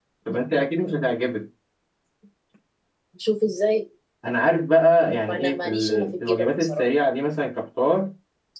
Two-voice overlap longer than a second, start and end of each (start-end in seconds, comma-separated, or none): 5.3-6.8